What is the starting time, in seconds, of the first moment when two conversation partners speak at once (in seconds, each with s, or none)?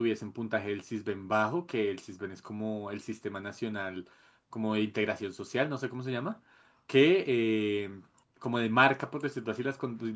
none